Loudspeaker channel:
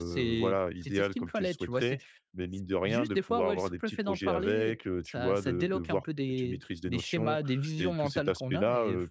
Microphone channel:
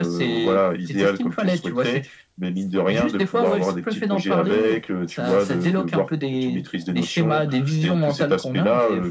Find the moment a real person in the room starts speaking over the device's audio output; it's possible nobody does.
none

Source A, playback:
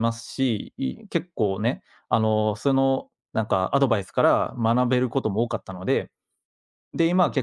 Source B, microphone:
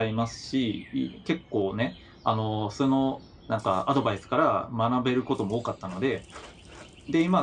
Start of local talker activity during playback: none

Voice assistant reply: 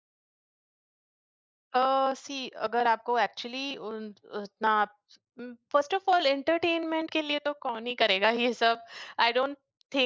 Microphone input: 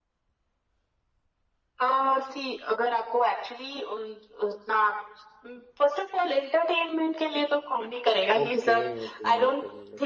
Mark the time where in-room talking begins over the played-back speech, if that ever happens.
8.4 s

